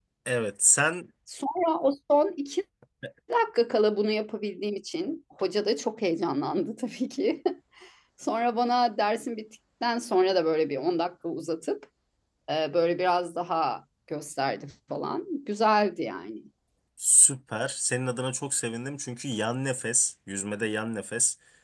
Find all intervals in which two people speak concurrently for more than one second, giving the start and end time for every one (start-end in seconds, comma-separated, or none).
none